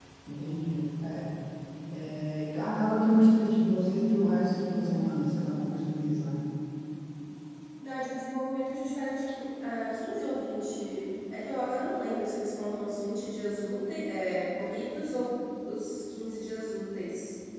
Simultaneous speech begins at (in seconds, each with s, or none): none